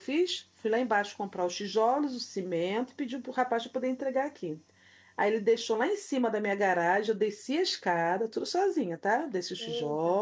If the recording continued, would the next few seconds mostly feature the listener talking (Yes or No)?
No